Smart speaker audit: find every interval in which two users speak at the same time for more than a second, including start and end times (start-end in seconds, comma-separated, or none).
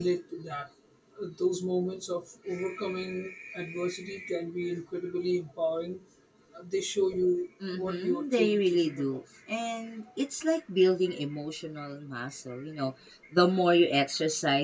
7.7-9.2